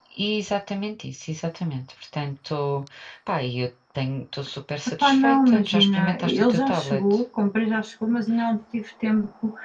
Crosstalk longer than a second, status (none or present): present